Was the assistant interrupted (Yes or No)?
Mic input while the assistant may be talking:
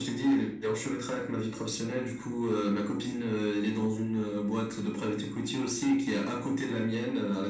No